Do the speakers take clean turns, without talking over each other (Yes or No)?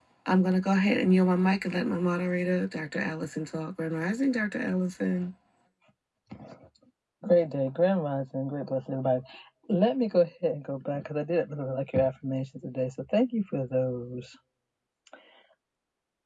Yes